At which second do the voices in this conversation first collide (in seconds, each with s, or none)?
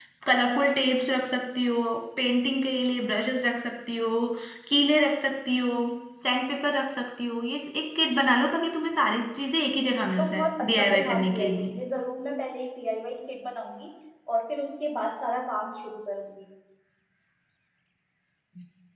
10.0 s